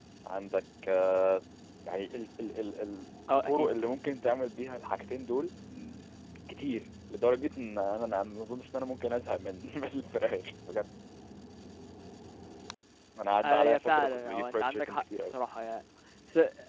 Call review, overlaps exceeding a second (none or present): present